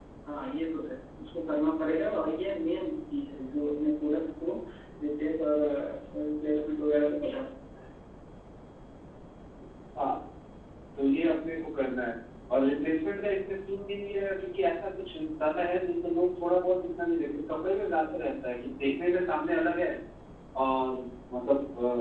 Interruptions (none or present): none